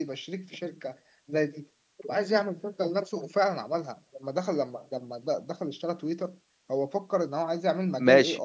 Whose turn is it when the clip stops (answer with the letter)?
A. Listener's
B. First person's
A